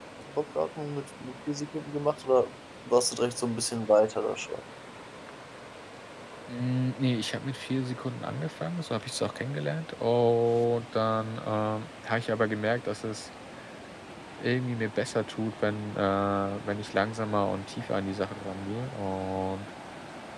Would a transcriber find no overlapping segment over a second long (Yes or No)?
Yes